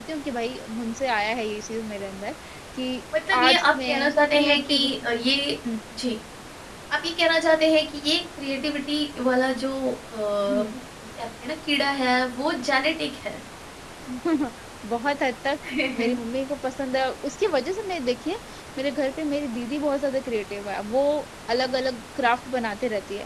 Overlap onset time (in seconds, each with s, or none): 3.3 s